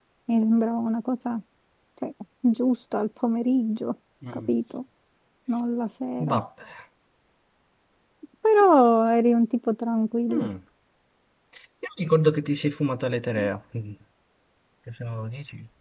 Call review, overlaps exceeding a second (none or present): none